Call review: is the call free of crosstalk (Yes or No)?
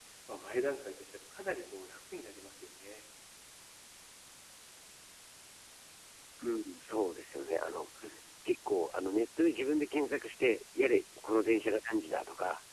Yes